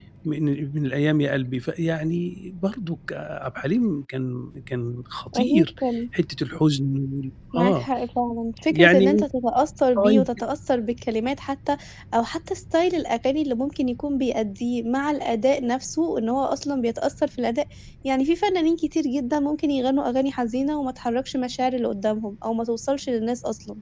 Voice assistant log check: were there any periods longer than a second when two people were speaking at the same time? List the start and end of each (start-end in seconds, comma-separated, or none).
none